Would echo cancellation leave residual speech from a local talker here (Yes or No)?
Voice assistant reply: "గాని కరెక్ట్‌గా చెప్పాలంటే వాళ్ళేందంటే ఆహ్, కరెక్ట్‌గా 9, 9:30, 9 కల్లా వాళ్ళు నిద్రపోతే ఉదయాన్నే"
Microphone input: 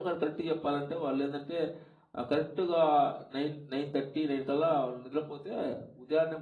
No